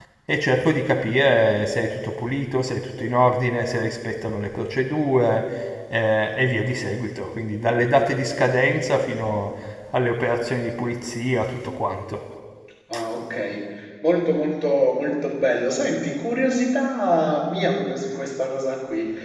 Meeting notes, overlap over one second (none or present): none